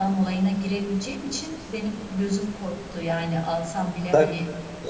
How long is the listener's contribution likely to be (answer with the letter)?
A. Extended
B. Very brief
A